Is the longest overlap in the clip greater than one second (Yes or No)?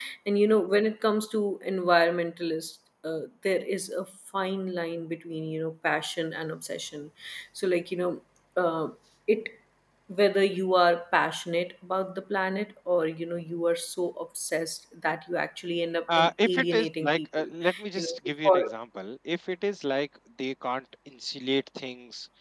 Yes